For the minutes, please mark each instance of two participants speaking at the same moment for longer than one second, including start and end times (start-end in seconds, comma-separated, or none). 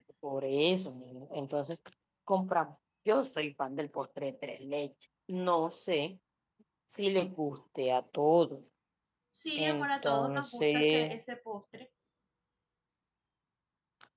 9.6-11.1